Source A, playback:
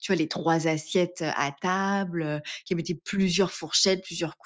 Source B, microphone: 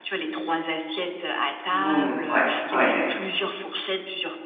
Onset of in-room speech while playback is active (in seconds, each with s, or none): 1.7 s